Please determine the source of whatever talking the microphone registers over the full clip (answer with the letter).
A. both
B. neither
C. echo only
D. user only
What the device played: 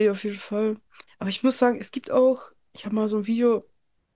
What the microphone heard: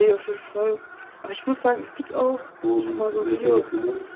A